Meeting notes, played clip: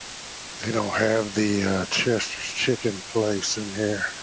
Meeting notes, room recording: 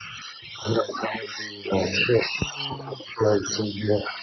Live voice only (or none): Mm.